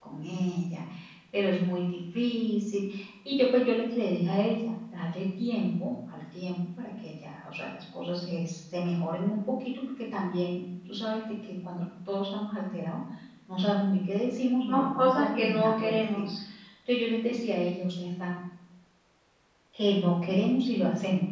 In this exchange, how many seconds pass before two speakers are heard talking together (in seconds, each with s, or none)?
14.6 s